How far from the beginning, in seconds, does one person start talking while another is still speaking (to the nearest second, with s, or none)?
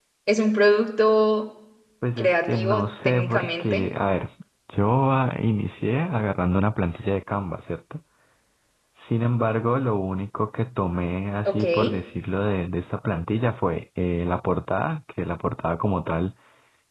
2 s